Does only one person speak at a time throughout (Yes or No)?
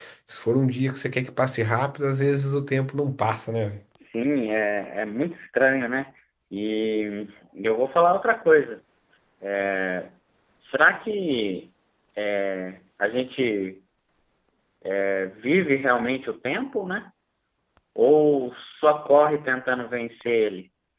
Yes